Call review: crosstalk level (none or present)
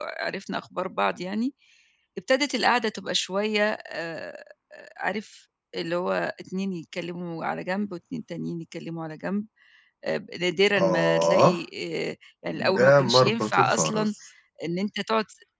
present